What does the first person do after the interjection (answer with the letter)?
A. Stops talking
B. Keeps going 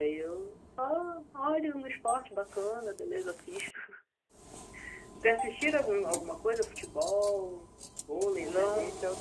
A